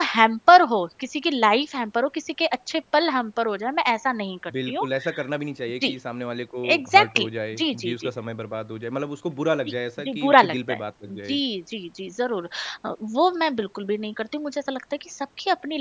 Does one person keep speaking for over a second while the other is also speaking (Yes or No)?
Yes